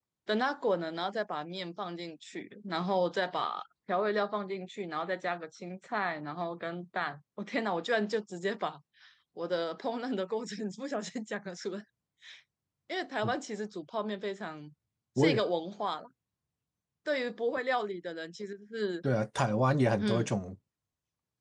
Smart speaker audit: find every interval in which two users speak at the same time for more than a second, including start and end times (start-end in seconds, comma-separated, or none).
none